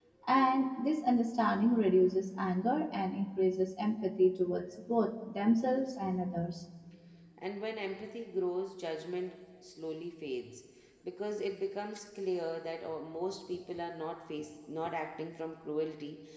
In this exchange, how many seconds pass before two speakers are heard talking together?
none

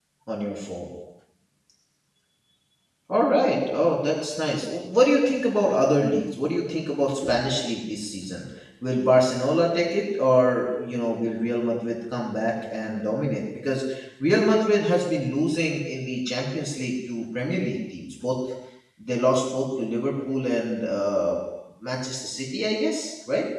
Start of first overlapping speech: none

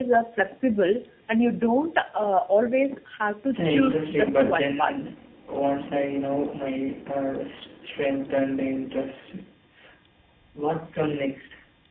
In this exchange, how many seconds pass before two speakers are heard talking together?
4 s

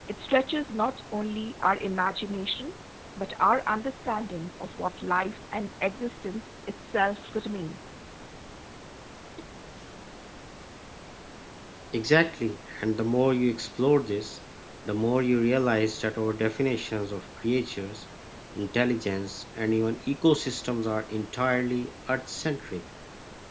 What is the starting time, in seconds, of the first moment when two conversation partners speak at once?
none

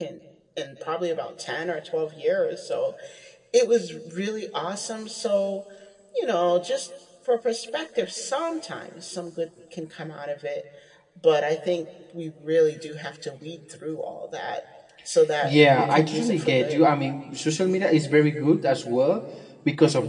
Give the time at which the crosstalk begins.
15 s

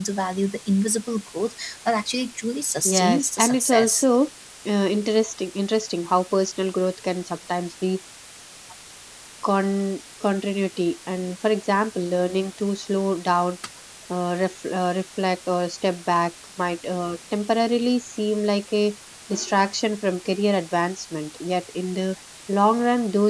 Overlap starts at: 3 s

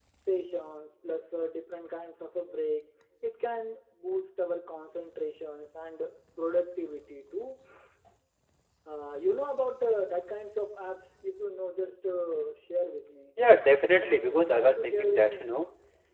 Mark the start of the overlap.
14 s

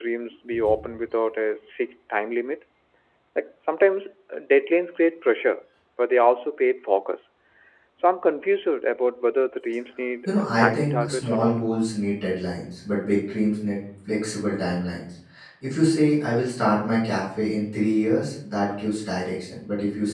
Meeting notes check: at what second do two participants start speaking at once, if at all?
10 s

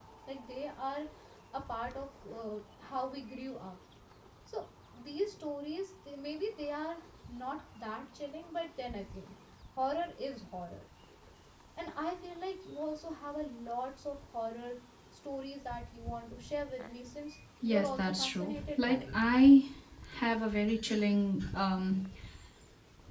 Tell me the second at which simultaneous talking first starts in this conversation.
18 s

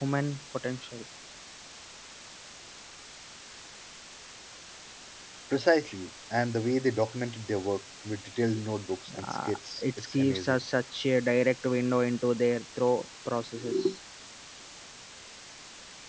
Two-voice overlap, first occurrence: 9 s

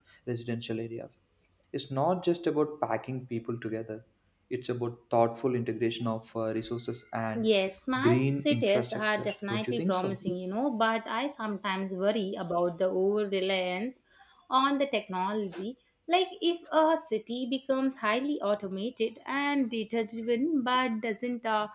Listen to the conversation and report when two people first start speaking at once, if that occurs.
8 s

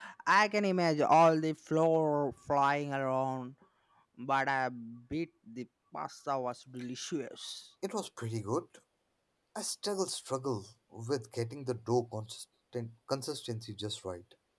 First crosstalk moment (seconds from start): none

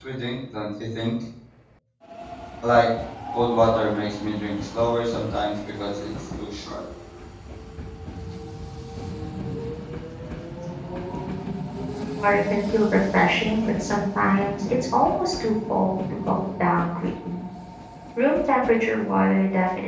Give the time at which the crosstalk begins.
none

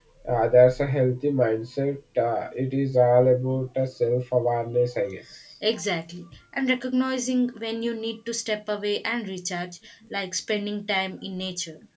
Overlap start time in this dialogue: none

